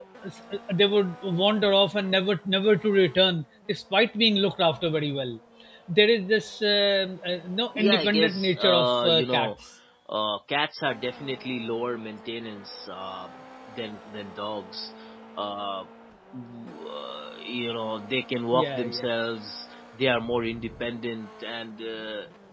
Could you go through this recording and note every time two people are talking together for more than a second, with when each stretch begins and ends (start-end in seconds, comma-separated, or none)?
7.8-9.5